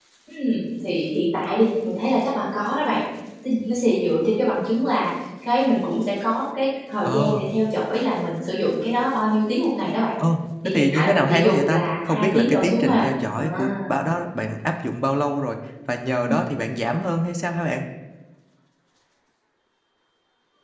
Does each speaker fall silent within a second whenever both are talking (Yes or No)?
No